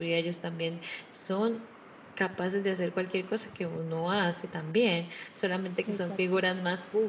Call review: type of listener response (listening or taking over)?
listening